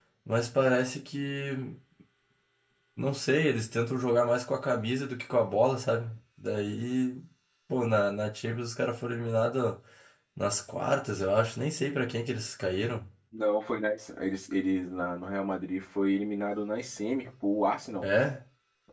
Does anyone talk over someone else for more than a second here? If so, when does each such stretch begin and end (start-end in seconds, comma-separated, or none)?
none